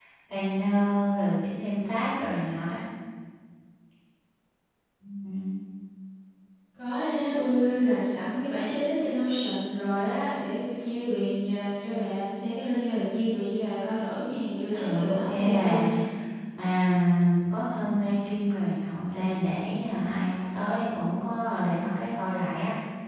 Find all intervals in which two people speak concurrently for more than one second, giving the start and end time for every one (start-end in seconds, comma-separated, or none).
14.7-16.0